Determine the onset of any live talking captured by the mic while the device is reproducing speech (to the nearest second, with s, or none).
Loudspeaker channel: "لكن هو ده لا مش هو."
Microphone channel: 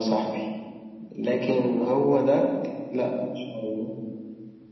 none